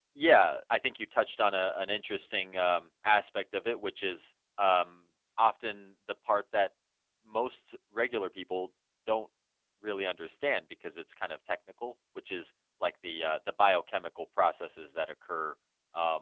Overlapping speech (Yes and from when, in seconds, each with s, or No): No